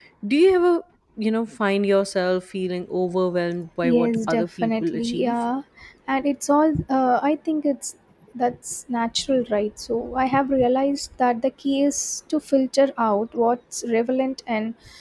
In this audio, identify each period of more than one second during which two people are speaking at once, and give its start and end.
3.8-5.3

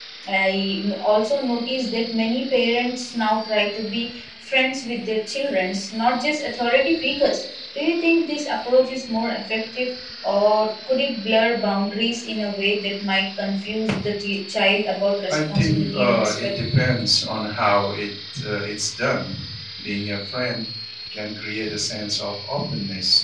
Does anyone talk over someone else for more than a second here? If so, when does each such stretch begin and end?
15.3-16.6

